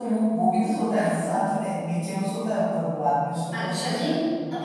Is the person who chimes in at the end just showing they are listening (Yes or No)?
No